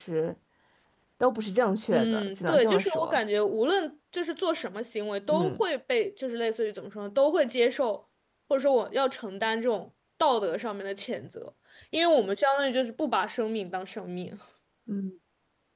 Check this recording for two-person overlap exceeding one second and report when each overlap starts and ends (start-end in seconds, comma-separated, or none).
1.9-3.2